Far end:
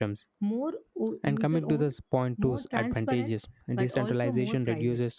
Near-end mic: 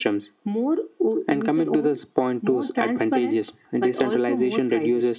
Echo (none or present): present